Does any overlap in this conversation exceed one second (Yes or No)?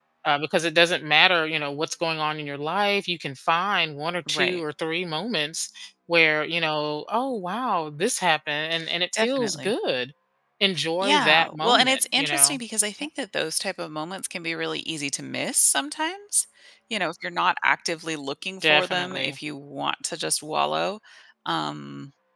Yes